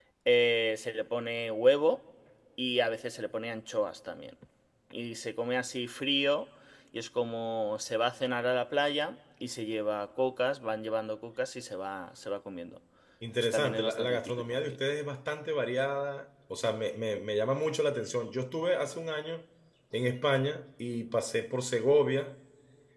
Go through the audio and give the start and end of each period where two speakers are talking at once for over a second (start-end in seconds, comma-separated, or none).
13.4-14.8